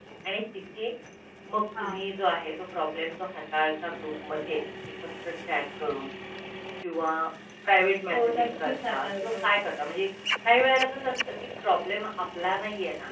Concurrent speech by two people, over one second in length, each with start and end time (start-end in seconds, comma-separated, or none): 8.1-9.4